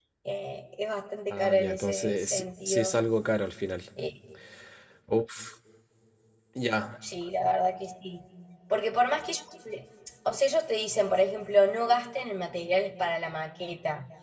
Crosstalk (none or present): present